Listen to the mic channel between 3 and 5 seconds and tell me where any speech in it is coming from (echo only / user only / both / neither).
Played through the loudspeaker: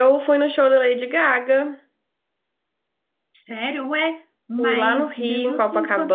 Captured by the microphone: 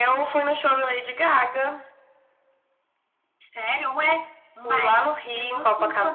echo only